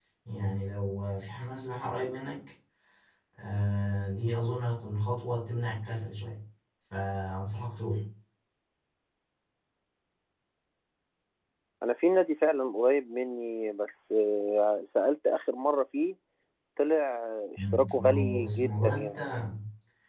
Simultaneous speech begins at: 18 s

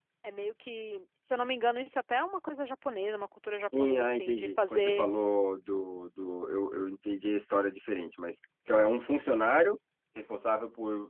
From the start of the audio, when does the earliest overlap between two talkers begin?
4 s

